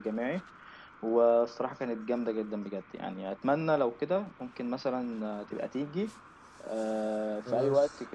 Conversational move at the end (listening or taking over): listening